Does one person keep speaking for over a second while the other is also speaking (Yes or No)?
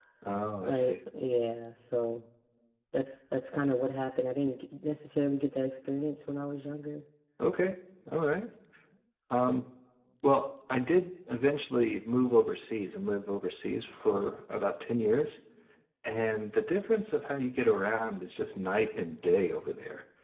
No